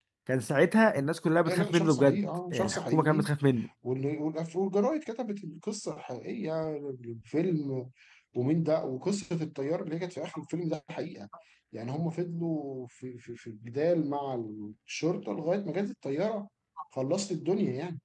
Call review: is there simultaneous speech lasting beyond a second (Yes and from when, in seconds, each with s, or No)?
Yes, from 1.4 s